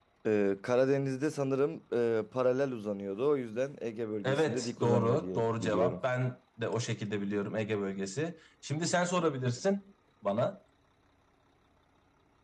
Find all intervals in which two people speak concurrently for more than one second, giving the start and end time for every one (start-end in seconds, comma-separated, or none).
4.2-6.0